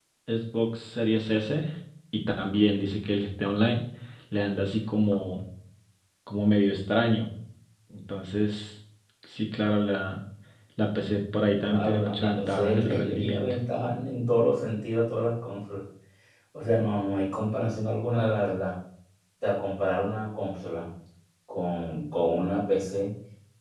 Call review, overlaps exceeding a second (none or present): present